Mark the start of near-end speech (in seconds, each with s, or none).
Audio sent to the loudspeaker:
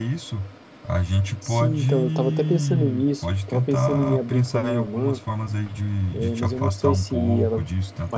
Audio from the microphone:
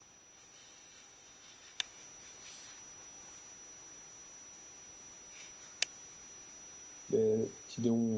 7.1 s